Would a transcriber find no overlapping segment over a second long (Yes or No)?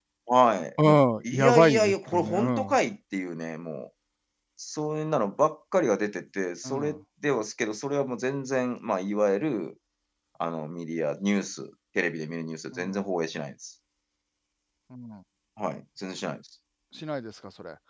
No